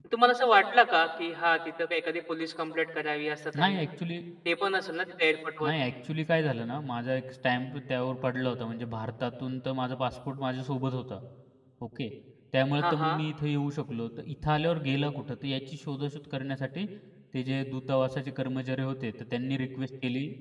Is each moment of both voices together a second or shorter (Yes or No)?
Yes